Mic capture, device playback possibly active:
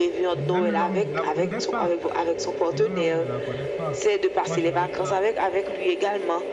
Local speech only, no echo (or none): et même l'homme ne la connaît pas. Et même l'homme ne la connaît pas. Moi, je n'arrive pas,